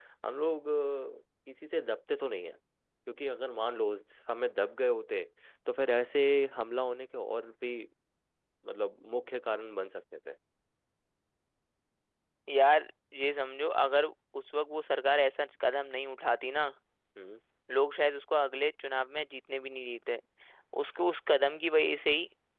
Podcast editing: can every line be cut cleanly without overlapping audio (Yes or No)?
Yes